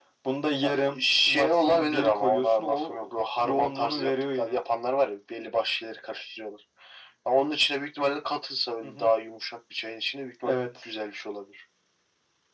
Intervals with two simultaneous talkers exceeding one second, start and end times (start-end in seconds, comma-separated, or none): 0.6-3.0, 3.4-4.6